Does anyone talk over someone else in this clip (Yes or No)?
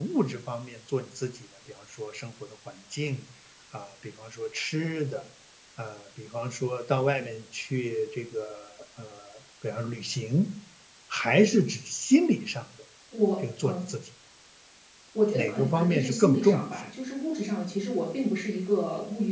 Yes